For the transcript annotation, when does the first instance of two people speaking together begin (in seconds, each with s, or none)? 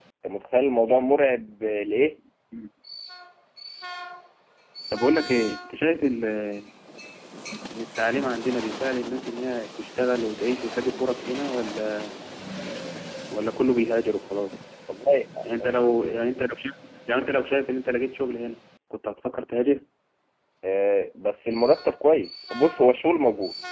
none